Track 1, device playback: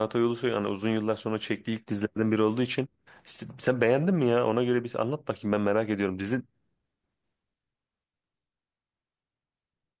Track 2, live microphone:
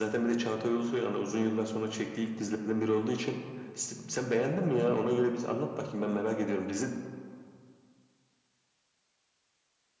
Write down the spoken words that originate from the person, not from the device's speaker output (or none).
none